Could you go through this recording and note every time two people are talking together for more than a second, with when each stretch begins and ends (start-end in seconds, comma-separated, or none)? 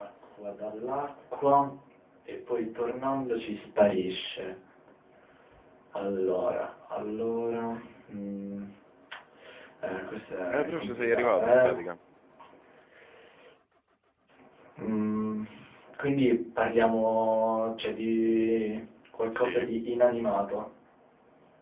10.5-11.7